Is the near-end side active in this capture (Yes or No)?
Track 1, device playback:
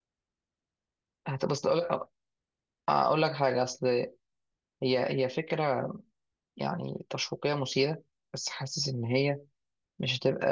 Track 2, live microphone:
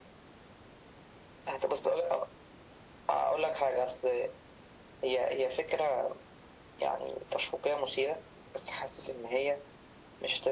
No